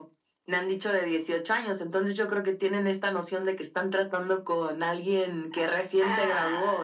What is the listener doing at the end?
taking over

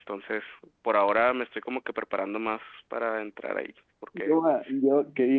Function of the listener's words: taking over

